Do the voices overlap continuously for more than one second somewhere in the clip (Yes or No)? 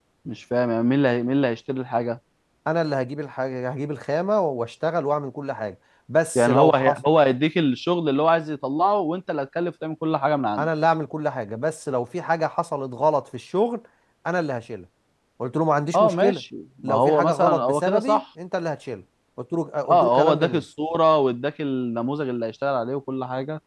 Yes